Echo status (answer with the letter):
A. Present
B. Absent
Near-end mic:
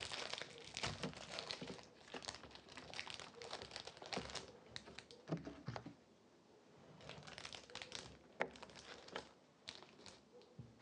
B